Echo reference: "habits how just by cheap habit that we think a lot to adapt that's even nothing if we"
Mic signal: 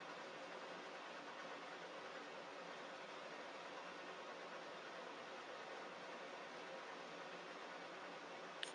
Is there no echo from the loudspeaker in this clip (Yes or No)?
Yes